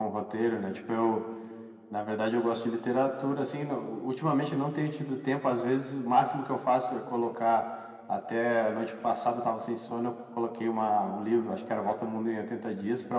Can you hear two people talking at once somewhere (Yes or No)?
No